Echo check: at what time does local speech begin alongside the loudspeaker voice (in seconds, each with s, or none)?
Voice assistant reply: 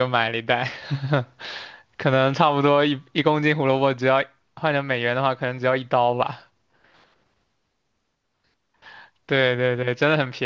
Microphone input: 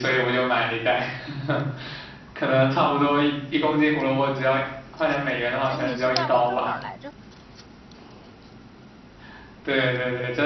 5.7 s